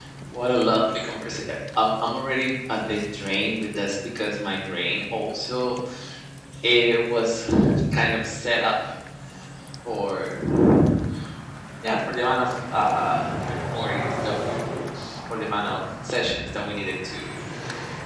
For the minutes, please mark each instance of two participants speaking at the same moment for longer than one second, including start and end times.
none

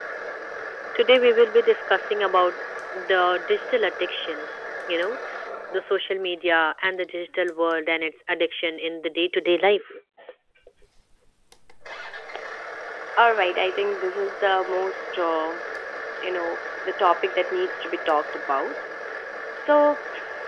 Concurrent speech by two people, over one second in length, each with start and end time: none

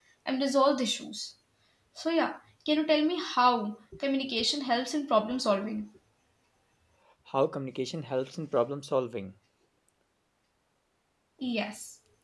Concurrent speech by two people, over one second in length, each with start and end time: none

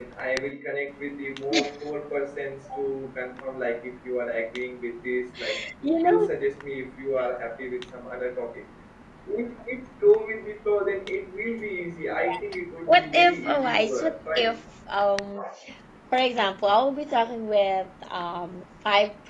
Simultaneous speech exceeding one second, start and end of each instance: 12.9-14.5

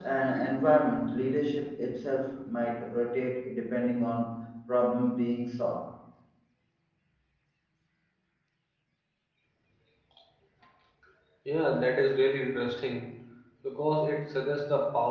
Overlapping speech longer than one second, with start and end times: none

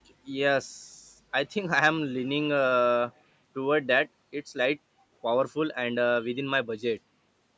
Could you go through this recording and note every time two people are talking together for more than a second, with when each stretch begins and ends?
none

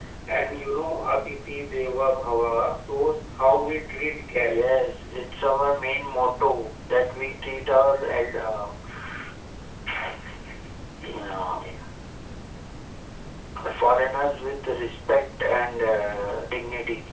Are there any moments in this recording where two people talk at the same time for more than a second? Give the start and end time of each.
none

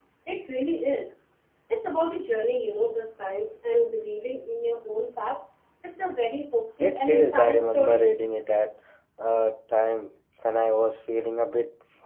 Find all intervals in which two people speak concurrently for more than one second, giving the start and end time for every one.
6.8-8.0

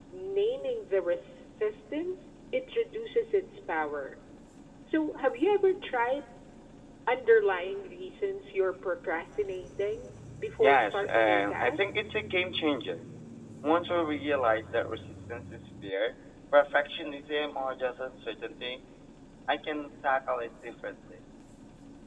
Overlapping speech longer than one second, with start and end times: 10.6-11.9

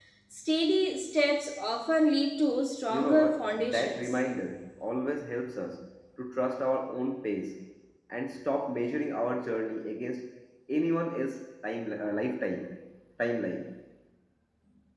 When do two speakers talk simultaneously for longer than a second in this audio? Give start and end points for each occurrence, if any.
2.9-4.2

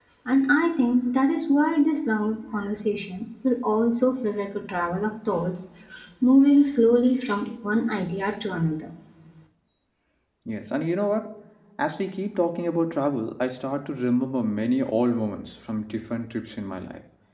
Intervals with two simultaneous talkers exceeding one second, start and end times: none

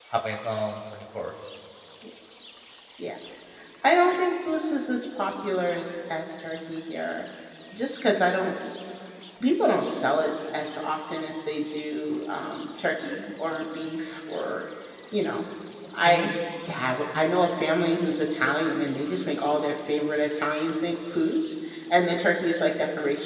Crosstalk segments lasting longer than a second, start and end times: none

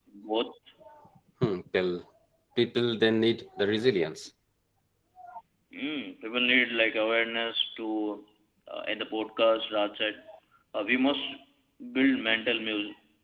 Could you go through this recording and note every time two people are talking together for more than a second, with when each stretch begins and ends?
none

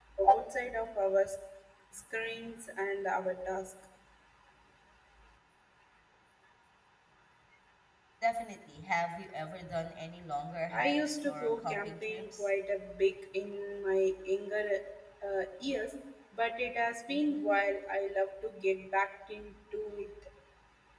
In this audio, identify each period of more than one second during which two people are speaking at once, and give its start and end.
10.7-12.5

